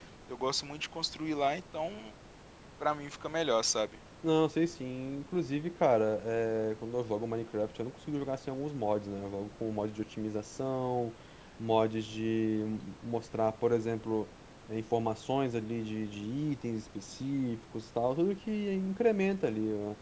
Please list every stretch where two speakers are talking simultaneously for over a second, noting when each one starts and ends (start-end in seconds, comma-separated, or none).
none